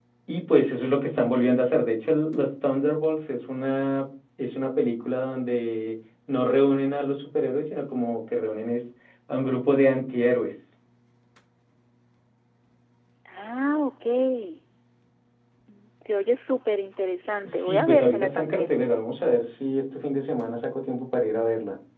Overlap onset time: 17.4 s

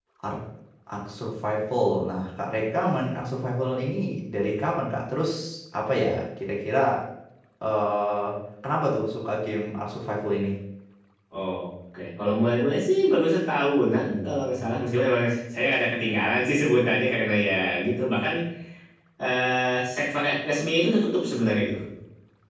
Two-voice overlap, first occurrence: none

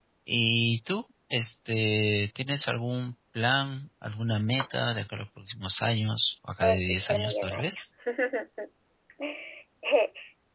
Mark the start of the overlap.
6.6 s

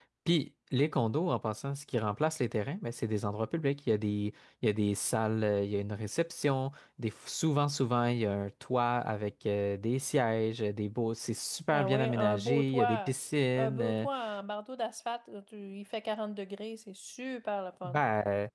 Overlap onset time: 11.7 s

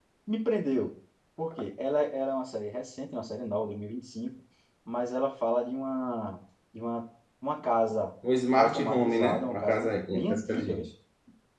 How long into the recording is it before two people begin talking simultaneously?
8.6 s

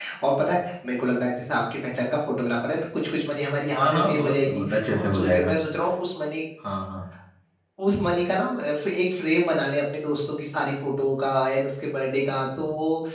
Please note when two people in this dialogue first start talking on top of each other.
3.7 s

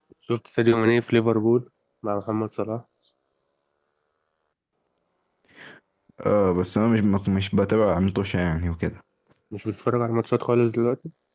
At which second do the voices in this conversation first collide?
none

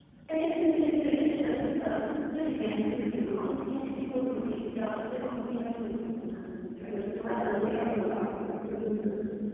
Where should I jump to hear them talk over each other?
6.8 s

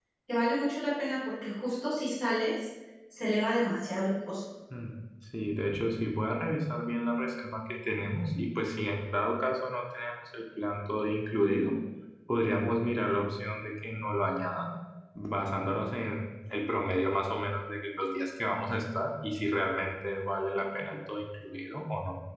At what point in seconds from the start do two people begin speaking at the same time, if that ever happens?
none

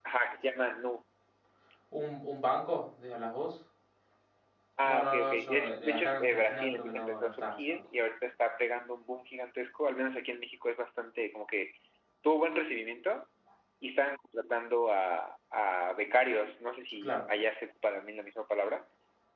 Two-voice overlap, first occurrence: 4.8 s

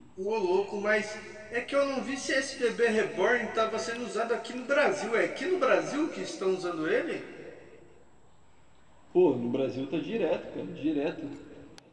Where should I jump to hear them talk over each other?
none

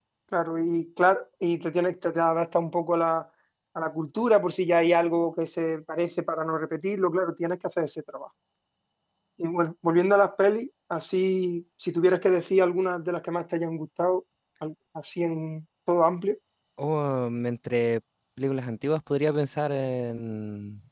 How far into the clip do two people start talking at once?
none

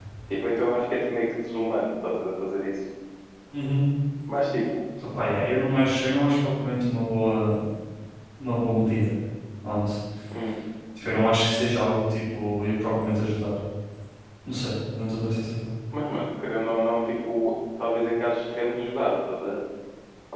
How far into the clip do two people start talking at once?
none

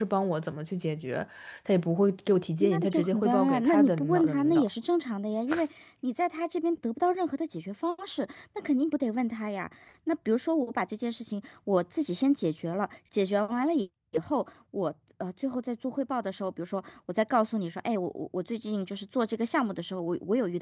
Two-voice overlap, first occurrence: 2.6 s

